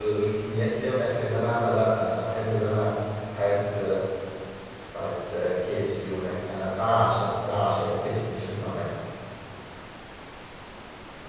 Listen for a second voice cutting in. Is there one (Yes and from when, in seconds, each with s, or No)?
No